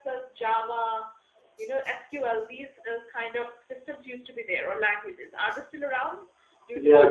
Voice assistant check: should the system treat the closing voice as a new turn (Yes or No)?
Yes